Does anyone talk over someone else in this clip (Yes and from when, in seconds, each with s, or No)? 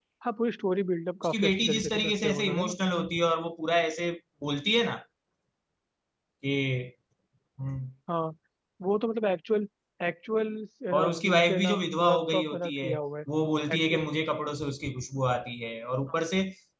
Yes, from 1.2 s